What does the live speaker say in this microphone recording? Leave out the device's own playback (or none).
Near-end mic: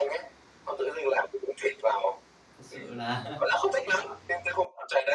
Thật sự là